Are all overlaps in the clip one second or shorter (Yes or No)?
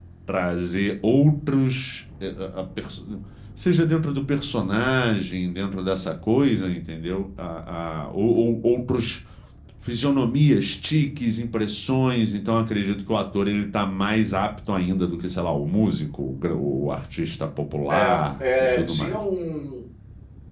No